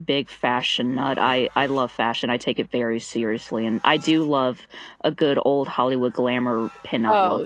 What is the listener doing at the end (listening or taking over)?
taking over